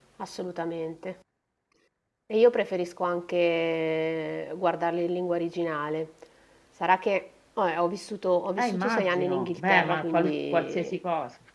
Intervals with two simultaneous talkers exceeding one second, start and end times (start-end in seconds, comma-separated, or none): 8.6-11.0